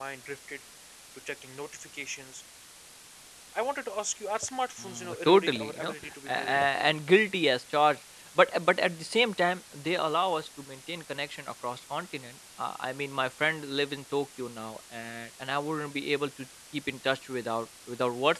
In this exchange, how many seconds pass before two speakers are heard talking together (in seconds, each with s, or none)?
4.8 s